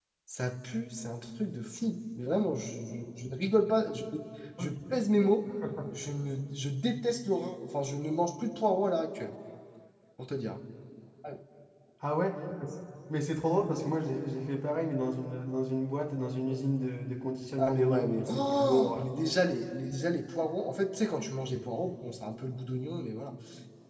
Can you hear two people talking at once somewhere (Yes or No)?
Yes